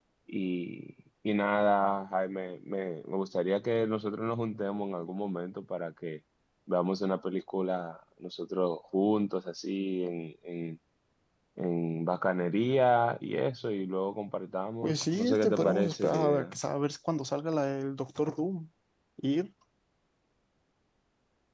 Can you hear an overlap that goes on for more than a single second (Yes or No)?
Yes